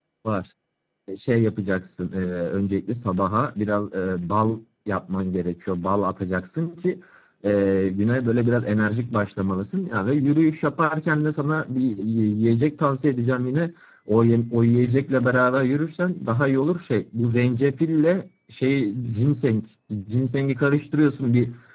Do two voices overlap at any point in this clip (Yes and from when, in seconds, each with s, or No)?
No